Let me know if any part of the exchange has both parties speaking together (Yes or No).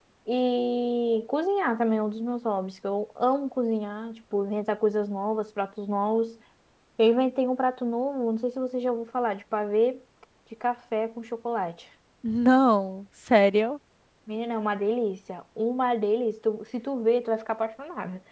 No